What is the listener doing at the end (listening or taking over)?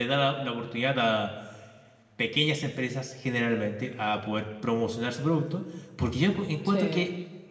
listening